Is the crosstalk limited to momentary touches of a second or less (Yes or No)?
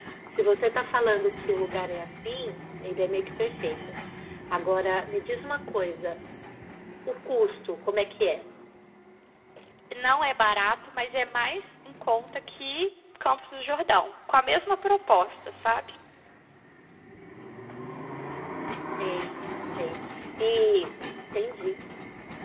Yes